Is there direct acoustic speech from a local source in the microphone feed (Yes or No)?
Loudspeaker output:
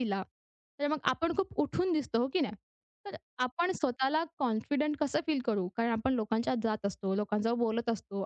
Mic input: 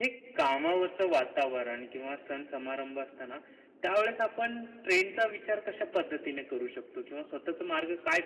Yes